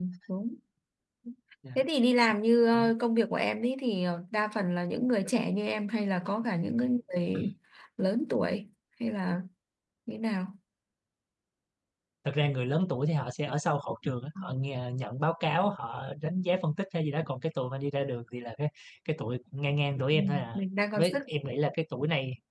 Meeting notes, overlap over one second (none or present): none